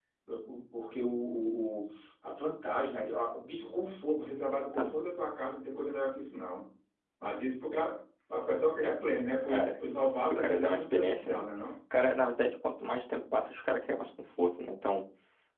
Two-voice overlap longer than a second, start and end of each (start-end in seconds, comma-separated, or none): 10.2-11.4